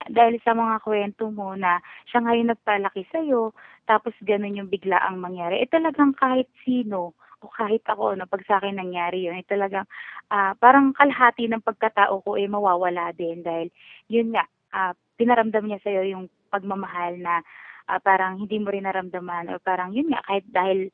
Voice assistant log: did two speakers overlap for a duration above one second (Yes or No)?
No